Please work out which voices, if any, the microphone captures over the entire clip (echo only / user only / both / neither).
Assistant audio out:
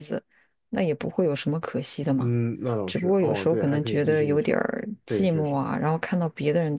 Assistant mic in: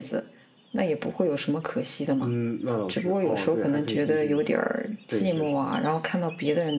echo only